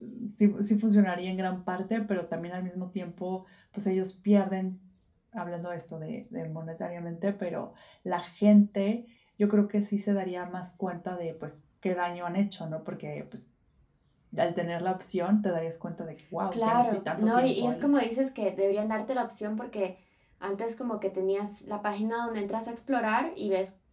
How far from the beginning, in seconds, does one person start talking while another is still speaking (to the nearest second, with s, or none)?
17 s